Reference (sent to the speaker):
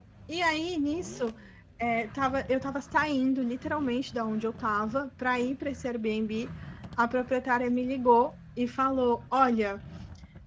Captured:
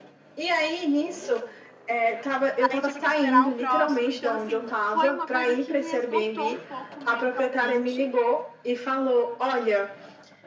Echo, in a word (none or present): present